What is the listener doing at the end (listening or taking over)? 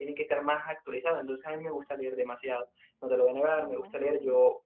listening